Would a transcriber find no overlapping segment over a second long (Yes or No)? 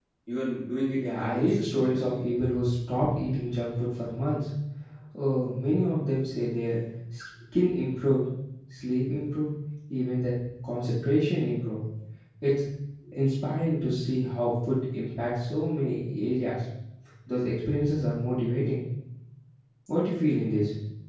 No